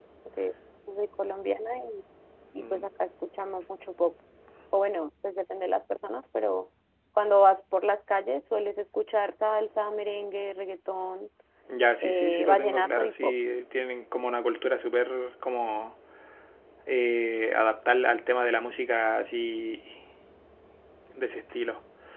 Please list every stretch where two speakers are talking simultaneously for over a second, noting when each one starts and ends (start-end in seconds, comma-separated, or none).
12.0-13.3